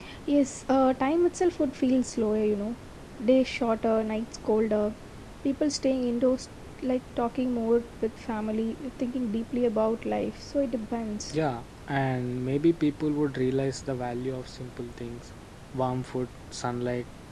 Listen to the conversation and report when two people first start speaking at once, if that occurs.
none

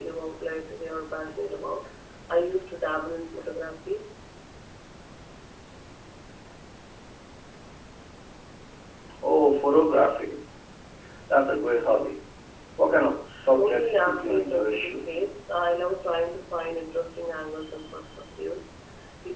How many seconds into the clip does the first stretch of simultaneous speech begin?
13.5 s

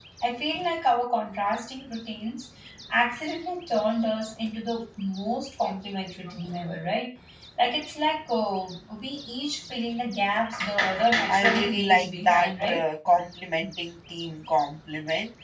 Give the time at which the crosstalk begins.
11.3 s

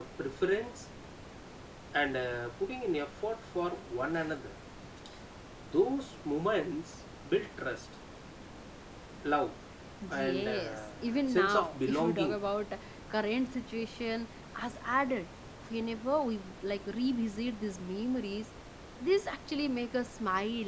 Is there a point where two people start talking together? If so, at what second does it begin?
10.1 s

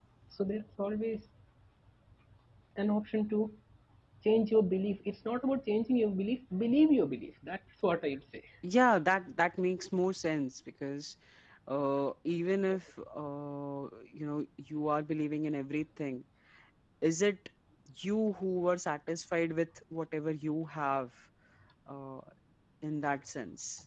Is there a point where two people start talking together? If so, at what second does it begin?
none

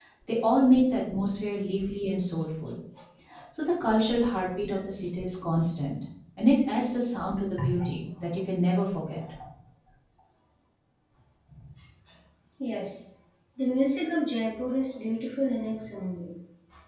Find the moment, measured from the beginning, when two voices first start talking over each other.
none

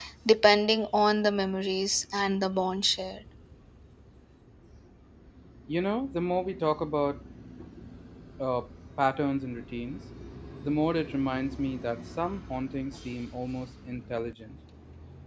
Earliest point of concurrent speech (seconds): none

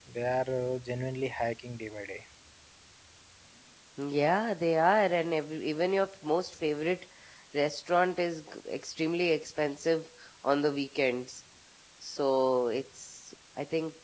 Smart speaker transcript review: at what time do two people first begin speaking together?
none

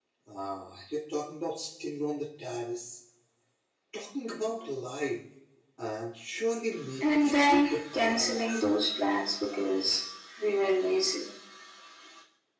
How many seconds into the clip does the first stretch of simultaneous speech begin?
7.0 s

